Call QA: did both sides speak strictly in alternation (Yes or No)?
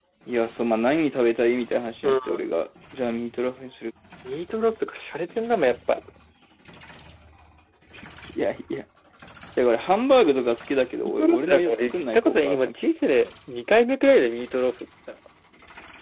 No